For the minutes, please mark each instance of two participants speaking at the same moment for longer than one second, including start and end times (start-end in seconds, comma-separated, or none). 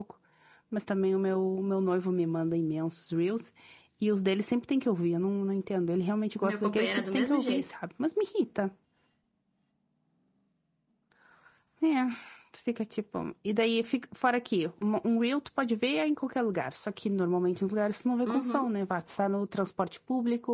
6.4-7.7